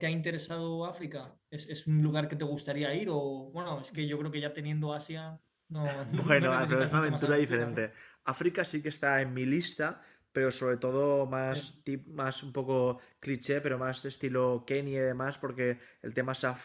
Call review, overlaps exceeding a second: present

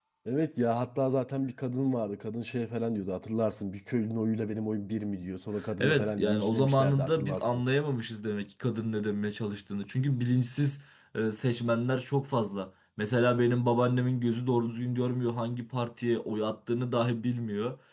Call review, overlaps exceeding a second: present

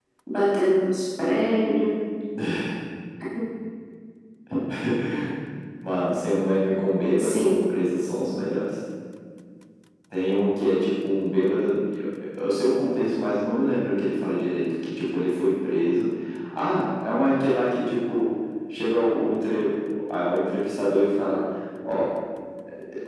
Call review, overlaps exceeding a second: none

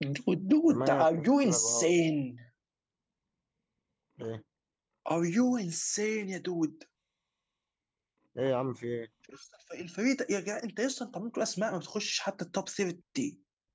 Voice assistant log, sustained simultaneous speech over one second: present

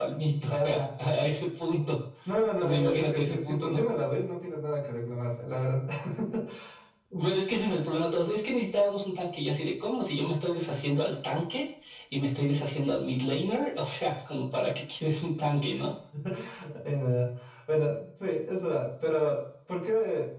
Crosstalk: present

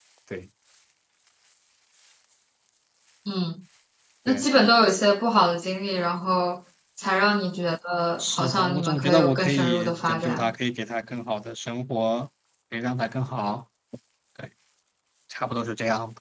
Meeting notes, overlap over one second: present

